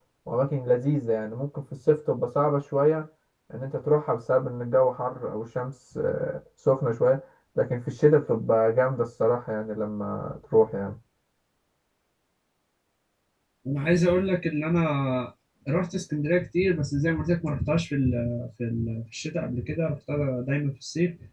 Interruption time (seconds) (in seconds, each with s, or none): none